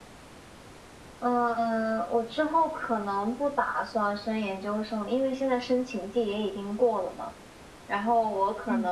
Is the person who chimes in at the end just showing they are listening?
Yes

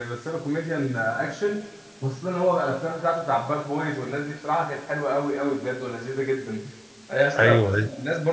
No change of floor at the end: Yes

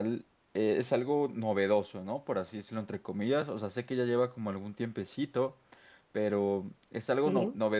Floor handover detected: No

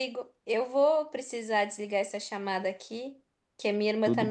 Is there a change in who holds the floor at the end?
No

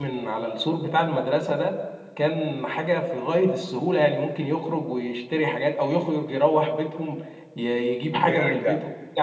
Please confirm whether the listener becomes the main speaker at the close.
Yes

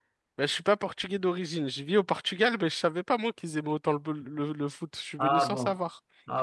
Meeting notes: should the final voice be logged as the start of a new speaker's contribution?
Yes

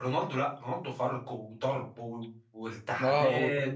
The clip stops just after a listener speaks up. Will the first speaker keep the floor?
No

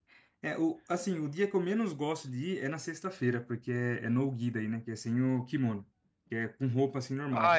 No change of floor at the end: No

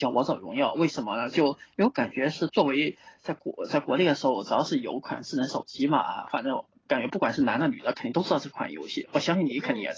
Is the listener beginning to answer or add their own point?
Yes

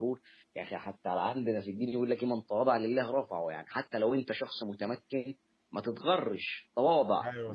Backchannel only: Yes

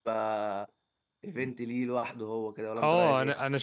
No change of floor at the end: No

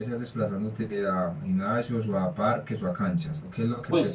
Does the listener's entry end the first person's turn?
Yes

